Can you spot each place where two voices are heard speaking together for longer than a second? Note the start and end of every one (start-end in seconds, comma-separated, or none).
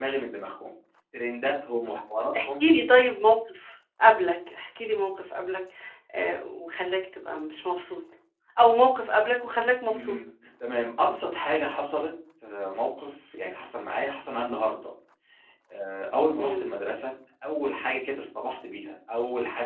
none